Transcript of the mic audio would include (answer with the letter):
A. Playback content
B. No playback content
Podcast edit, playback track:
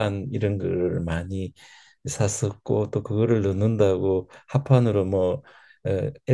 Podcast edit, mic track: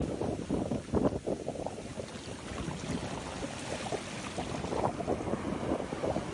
B